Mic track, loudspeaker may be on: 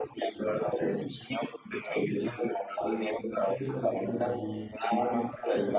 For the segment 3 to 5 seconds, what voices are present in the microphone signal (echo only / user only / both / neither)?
echo only